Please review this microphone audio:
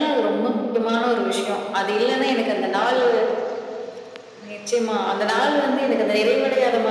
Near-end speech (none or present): none